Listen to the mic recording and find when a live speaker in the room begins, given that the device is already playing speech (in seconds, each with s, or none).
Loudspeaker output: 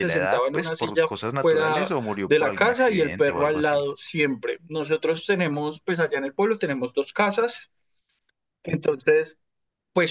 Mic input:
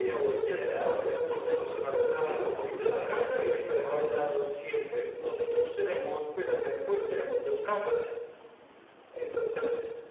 none